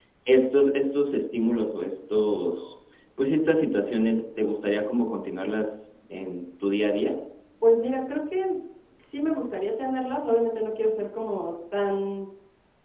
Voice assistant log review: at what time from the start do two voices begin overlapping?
none

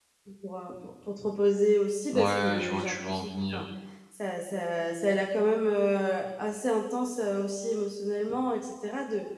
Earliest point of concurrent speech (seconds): 2.1 s

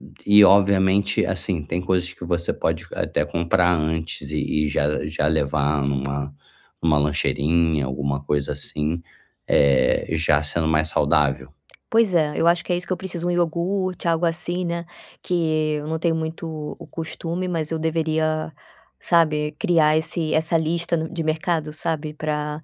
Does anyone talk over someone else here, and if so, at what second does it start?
none

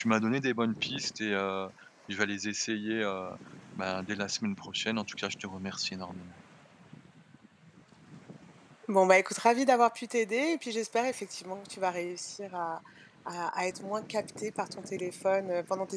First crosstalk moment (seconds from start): none

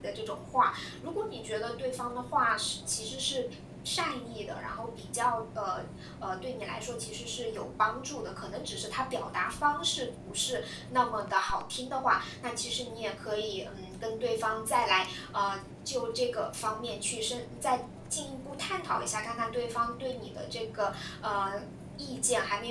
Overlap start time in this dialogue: none

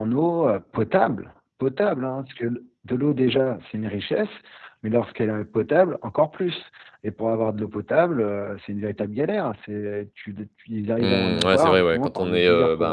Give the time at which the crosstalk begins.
11.0 s

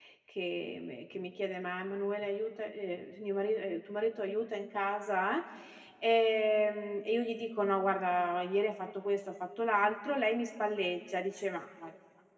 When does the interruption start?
none

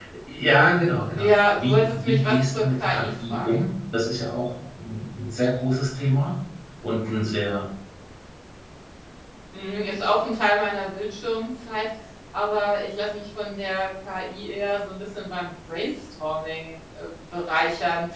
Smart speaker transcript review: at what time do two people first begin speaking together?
1.1 s

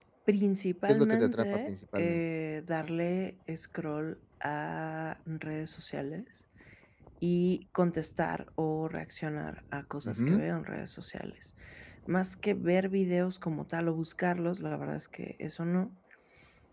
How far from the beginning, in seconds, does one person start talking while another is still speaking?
0.9 s

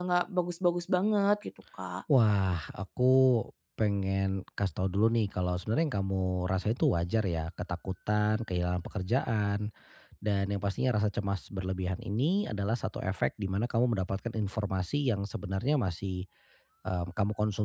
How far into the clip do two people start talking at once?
none

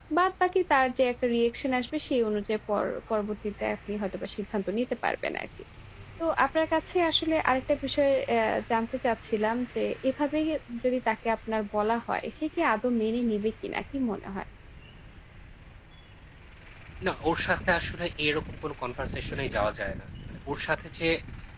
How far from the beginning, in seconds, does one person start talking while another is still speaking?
none

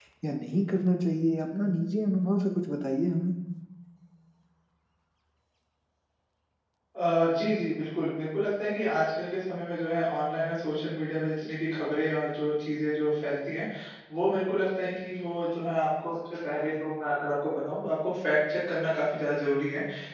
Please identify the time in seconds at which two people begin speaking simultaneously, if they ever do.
none

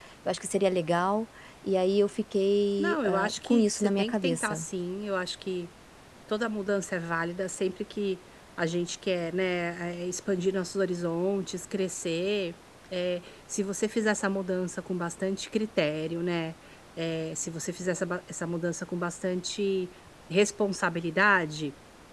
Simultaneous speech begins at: 2.8 s

